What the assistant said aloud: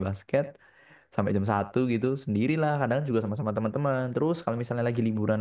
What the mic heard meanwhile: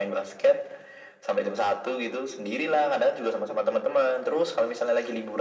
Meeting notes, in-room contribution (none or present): none